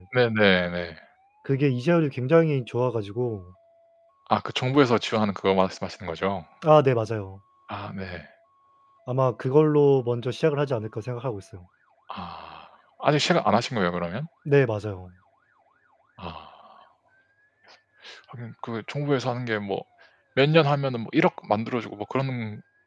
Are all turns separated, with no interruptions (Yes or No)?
Yes